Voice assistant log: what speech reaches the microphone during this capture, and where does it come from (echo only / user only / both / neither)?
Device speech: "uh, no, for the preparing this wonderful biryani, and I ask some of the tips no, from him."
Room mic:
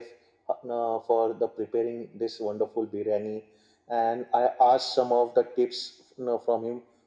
echo only